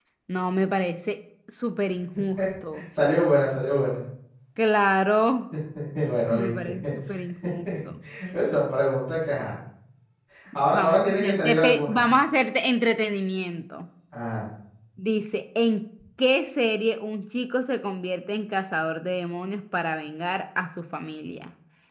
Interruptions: present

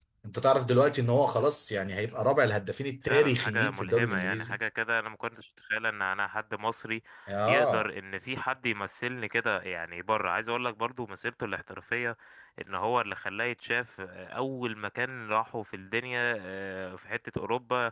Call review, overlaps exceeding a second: present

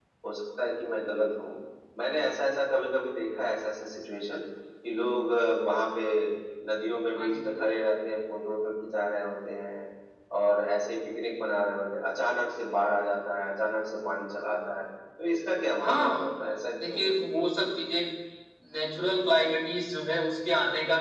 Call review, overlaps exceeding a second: none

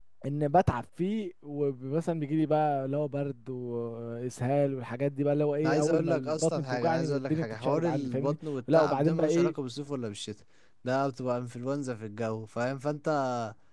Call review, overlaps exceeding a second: present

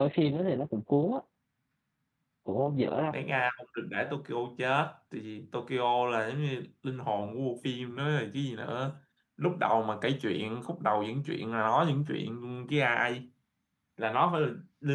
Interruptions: none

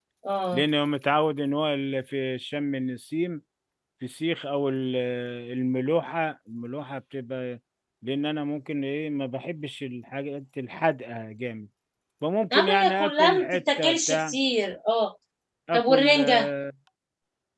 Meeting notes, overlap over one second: present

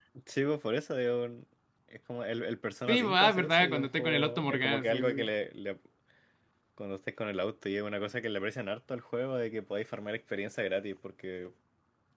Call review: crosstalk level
present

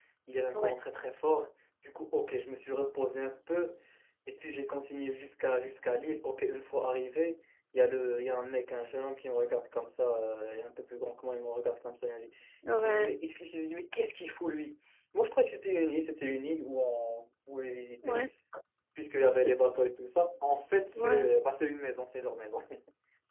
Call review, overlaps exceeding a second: none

